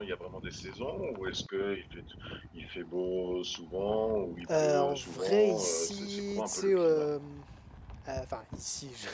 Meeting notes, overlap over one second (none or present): present